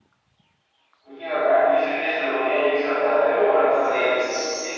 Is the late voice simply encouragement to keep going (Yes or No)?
No